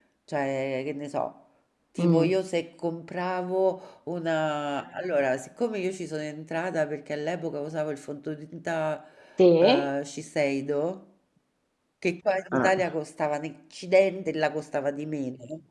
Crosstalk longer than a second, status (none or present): none